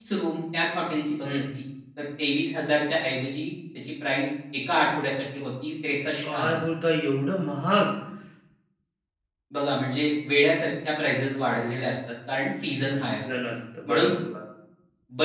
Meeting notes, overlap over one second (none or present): none